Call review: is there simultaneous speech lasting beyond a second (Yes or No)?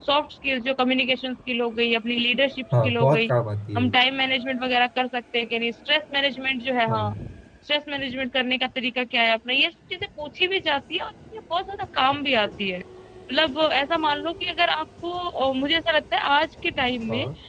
No